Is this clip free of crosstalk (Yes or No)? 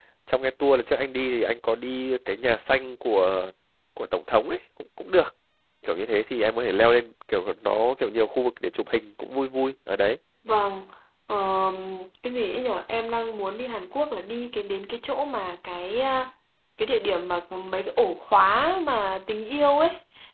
Yes